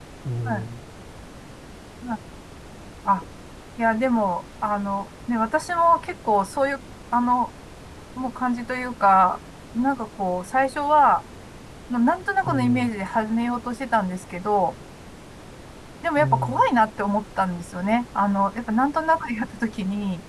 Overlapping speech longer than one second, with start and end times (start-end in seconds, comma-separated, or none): none